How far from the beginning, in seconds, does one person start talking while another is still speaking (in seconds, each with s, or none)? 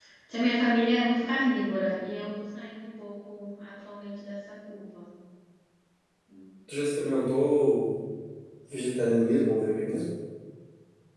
none